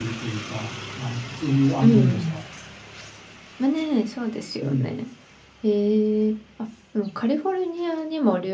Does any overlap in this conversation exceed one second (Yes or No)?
No